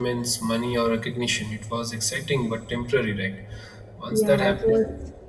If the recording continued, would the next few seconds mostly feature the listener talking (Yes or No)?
Yes